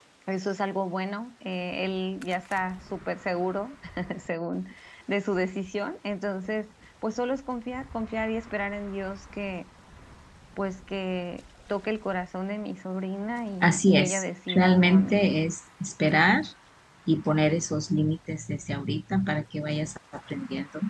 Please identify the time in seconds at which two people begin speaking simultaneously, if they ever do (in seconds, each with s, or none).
13.6 s